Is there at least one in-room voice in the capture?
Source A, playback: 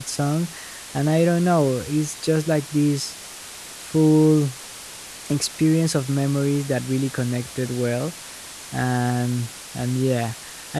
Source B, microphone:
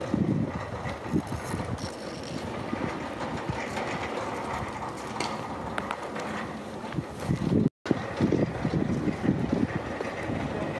No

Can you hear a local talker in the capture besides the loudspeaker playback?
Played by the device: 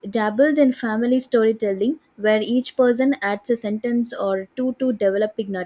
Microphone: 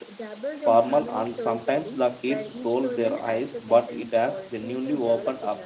Yes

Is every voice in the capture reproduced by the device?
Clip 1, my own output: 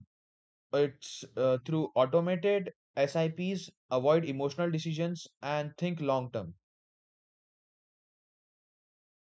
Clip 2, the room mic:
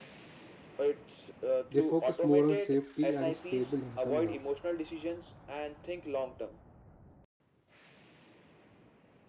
No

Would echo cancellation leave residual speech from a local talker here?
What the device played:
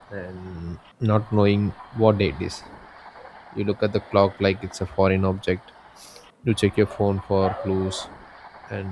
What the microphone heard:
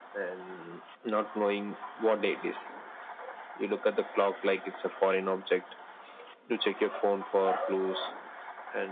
No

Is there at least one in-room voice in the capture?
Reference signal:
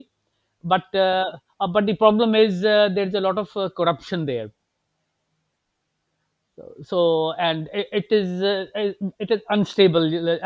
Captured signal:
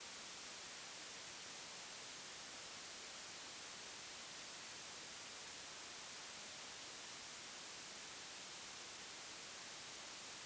No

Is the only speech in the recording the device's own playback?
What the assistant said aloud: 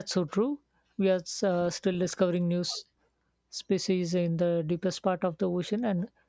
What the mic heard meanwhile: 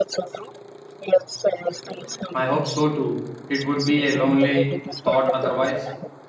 No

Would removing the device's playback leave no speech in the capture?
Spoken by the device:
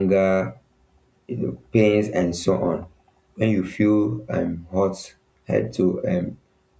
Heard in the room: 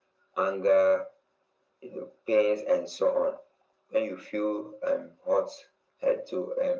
Yes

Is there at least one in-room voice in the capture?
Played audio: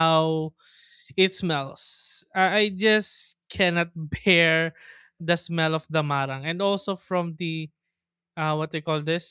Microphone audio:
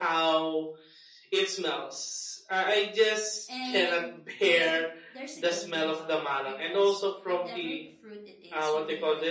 Yes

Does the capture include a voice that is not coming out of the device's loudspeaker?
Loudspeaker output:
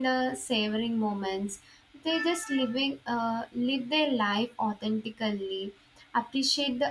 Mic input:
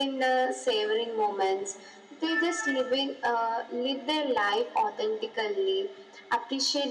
No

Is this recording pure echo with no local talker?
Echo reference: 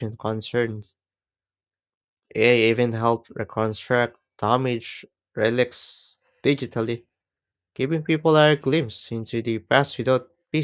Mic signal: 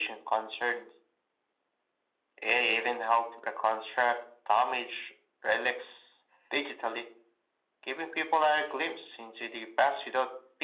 Yes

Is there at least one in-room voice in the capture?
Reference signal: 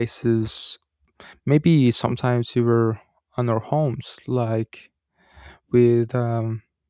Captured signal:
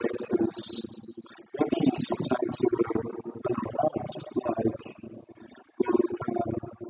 No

